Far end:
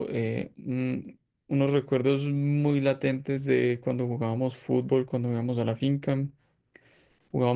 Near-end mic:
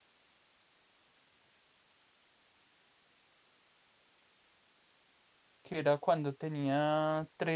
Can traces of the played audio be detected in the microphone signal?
No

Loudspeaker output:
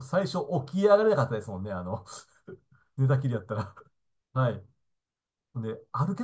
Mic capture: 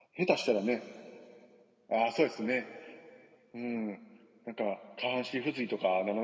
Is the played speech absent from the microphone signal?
Yes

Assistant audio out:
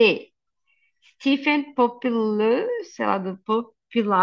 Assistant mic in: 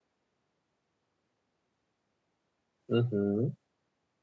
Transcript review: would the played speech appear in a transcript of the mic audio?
No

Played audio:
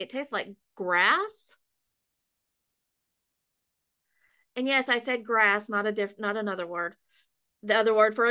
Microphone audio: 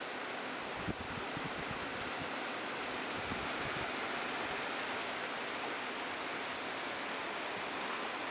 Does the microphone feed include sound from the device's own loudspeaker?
No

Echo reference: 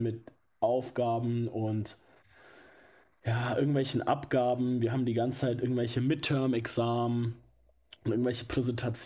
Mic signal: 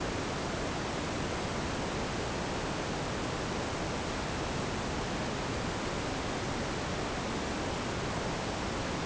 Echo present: No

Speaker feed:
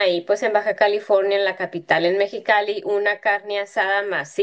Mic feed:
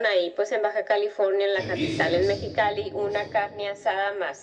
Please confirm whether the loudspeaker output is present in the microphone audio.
Yes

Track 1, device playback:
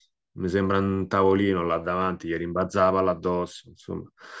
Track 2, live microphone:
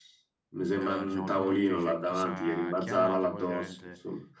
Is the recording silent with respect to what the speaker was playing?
No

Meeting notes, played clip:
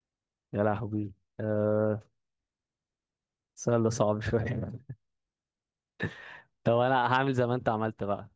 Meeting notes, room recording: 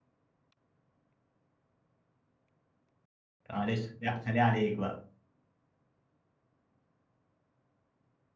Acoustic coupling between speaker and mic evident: No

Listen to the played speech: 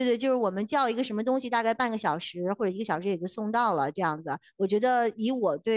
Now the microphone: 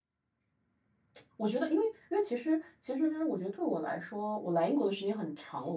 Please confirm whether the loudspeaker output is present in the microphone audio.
No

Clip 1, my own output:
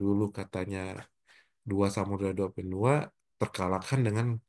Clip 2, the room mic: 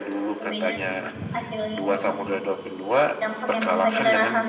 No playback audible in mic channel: No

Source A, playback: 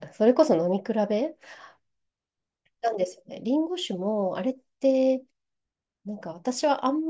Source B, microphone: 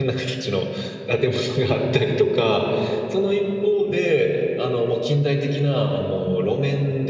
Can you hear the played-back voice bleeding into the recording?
No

